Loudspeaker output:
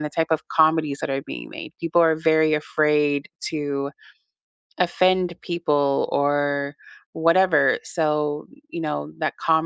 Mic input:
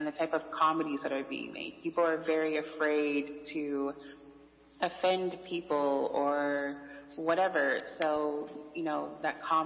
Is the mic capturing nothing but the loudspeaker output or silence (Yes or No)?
Yes